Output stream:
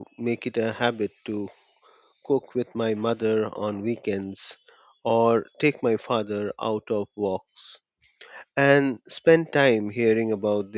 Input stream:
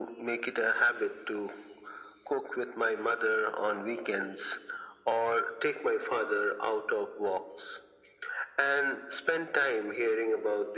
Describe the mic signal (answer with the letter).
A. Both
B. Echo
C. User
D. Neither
B